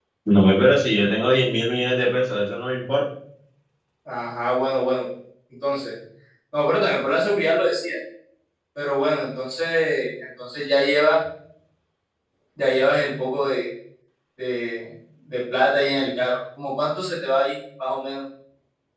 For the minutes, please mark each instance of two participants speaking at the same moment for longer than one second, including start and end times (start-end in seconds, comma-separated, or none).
none